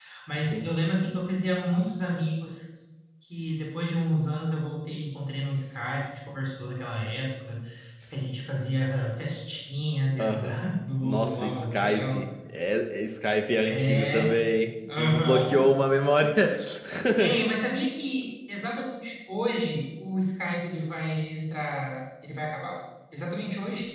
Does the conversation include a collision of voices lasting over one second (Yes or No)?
Yes